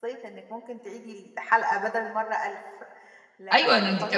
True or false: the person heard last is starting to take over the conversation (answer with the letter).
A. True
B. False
A